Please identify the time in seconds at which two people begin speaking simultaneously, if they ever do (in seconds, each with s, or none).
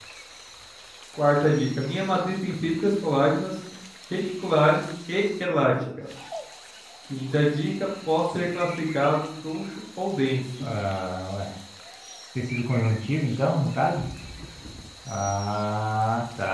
none